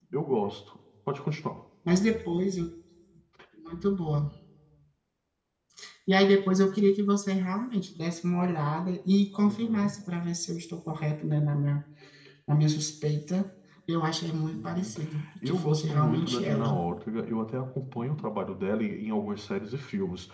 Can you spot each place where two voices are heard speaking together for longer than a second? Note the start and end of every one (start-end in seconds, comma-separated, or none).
15.4-16.8